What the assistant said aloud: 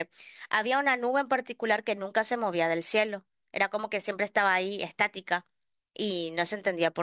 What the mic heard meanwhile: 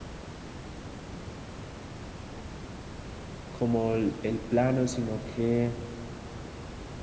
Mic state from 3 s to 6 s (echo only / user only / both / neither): user only